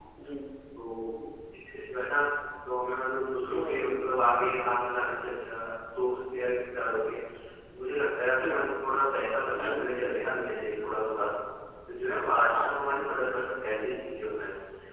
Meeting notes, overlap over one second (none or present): none